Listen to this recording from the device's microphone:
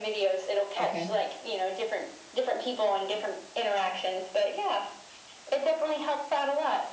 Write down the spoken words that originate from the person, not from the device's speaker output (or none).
Okay.